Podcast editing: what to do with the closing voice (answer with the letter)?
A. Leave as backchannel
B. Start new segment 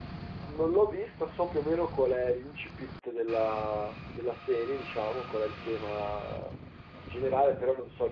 A